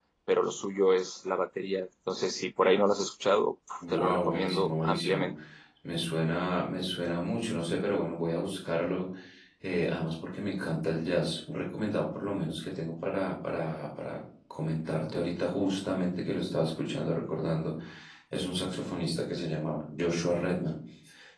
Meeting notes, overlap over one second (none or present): present